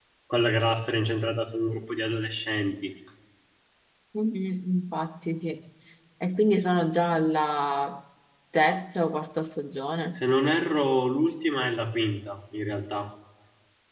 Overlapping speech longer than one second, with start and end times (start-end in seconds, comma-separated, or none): none